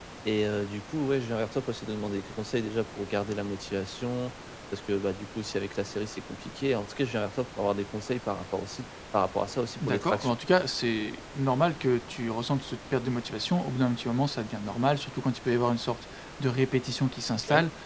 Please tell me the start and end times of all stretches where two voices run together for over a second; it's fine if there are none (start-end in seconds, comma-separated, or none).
none